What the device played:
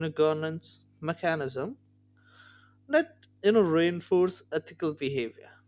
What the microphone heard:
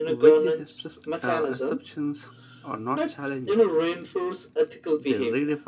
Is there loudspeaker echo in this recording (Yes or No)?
Yes